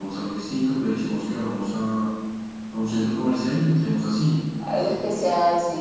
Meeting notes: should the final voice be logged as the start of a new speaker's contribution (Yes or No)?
Yes